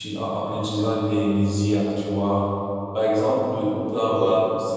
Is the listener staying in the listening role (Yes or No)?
Yes